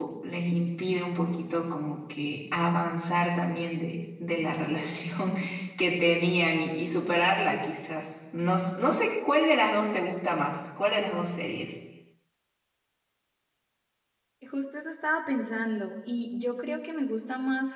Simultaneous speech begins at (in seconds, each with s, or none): none